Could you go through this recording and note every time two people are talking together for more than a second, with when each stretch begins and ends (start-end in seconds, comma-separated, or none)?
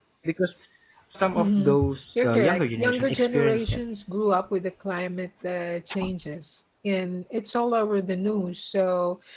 2.2-3.8